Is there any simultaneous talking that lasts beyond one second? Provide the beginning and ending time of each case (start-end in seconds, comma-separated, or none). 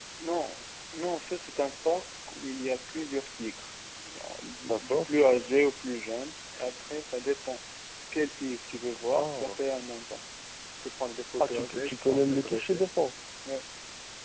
11.4-12.8